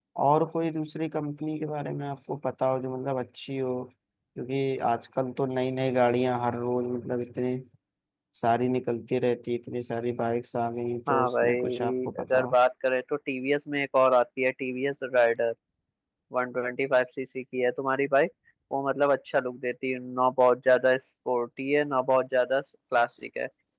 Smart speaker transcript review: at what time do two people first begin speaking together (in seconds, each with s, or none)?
11.1 s